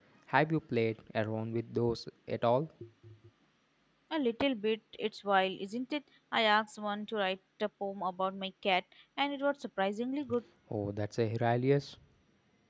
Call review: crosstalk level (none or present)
none